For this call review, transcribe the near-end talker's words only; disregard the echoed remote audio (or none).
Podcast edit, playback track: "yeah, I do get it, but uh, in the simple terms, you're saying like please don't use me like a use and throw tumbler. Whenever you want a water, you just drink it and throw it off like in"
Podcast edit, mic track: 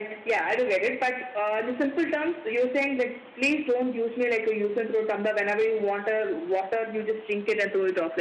none